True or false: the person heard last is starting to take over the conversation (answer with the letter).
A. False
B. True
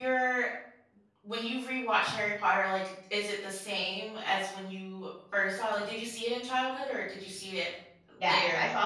B